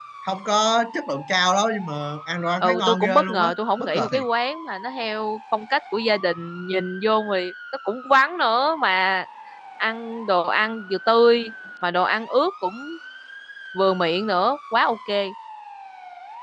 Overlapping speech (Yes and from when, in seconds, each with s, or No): Yes, from 2.6 s